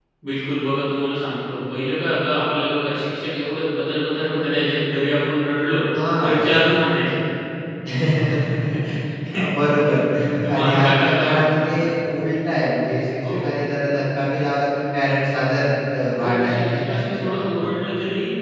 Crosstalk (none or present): present